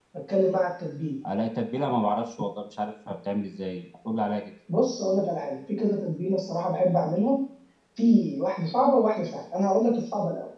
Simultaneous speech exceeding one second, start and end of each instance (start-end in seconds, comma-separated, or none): none